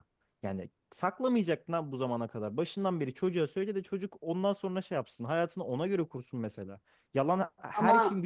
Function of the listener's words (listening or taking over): listening